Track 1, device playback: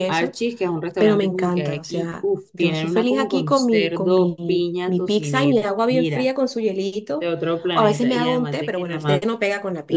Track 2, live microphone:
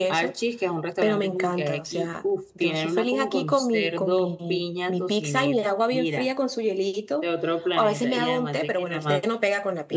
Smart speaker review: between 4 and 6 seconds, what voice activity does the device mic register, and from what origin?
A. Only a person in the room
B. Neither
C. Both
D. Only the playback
D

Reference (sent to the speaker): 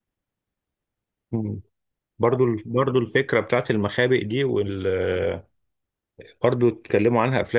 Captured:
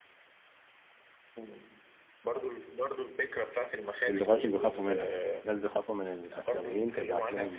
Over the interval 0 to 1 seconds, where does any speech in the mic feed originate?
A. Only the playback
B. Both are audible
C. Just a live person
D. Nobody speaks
D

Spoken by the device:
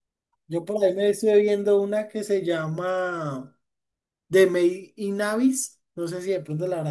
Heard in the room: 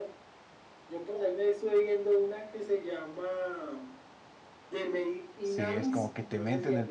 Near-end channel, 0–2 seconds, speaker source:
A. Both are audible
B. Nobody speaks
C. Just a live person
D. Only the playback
D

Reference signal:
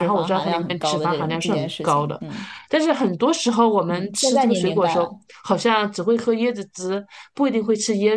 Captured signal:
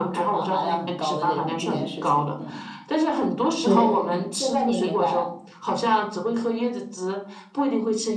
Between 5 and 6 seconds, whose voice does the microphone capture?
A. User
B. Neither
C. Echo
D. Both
C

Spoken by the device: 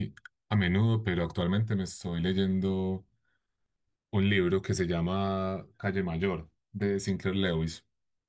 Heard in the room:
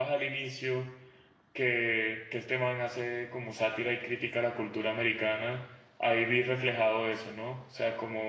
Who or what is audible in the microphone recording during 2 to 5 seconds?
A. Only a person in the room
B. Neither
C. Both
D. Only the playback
A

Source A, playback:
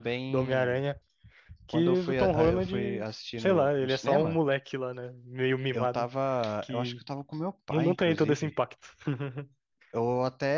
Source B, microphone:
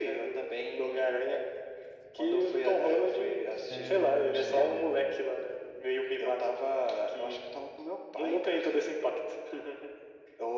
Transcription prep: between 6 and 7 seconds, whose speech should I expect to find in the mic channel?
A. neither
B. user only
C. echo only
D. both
C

